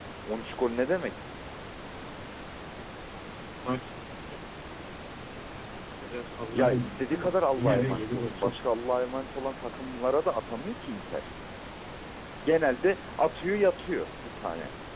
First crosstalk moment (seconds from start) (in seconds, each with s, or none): 6.5 s